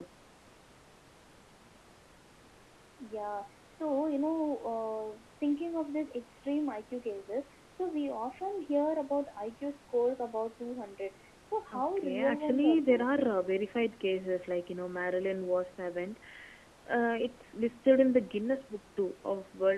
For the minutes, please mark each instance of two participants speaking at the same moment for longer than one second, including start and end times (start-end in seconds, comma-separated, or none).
11.7-13.2